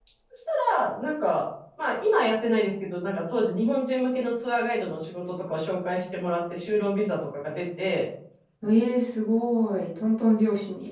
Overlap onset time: none

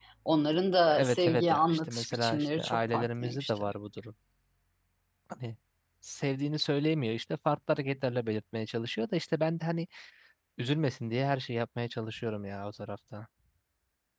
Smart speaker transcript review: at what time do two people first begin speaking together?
0.9 s

